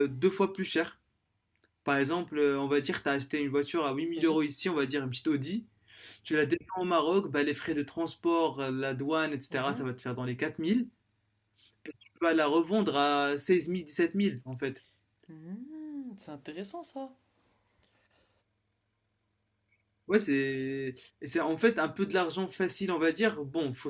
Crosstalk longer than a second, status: none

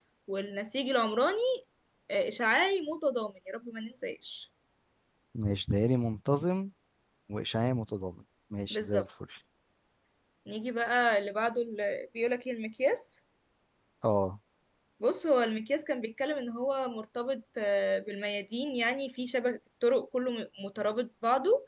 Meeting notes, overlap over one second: none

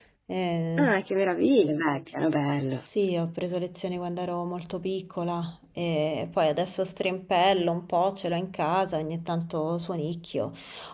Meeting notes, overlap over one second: none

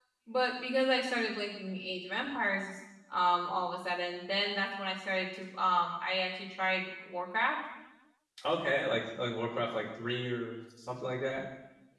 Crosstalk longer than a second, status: none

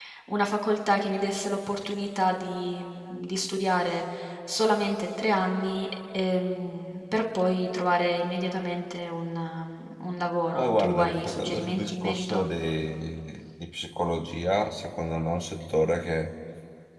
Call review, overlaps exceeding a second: present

